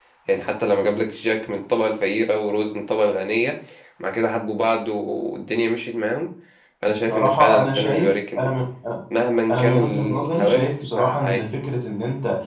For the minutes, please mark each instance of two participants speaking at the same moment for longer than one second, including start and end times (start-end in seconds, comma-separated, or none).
7.1-8.5, 9.5-11.5